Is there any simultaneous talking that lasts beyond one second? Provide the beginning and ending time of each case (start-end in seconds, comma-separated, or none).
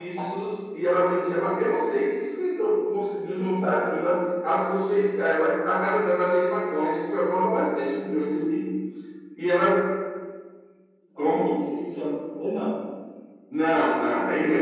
none